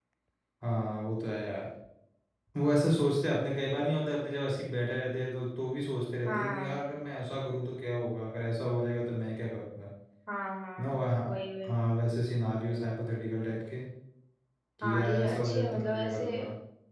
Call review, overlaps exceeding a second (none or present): present